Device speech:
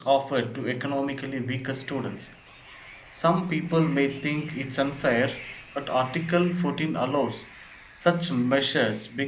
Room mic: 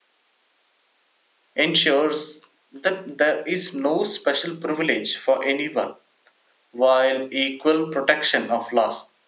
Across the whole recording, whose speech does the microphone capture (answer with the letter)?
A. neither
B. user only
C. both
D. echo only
B